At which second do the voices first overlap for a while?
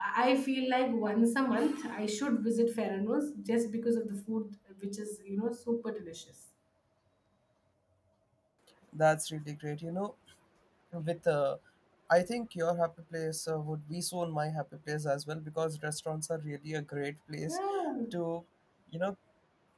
none

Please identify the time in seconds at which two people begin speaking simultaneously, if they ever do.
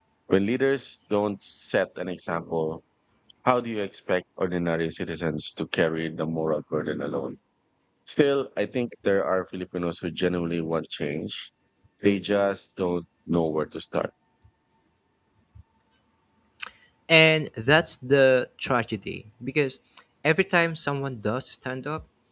none

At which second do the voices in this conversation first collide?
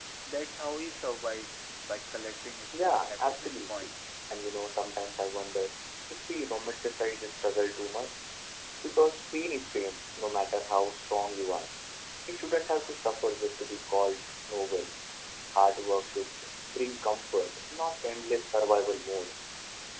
2.7 s

